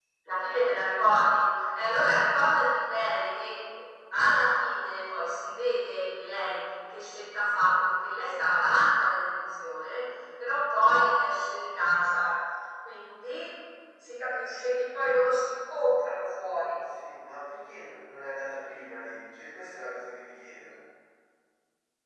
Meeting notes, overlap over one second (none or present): none